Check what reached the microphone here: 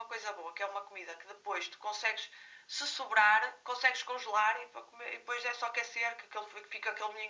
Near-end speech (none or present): none